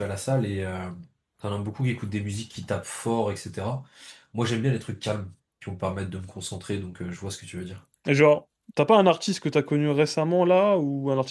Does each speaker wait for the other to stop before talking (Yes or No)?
Yes